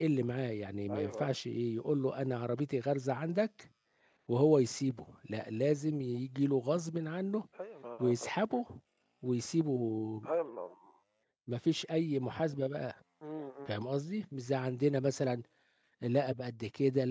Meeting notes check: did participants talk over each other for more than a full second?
No

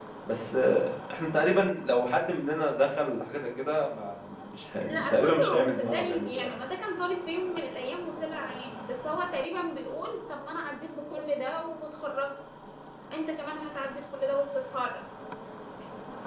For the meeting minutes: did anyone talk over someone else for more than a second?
Yes, from 4.8 s

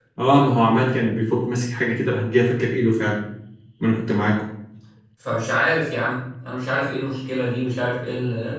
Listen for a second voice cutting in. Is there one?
No

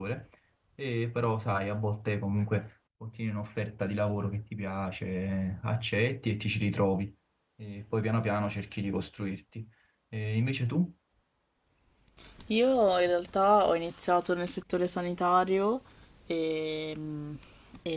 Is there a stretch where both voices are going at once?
No

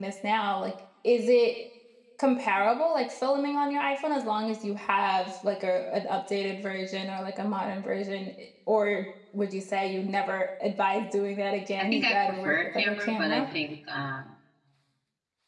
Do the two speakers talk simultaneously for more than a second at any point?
Yes, from 11.8 s

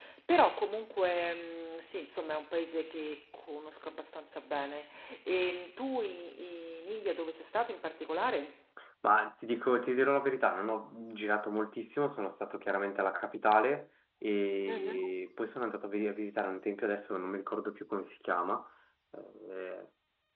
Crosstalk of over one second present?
No

